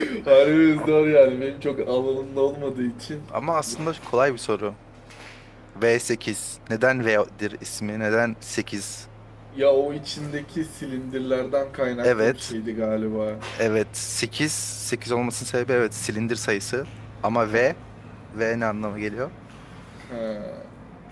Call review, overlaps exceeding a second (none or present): none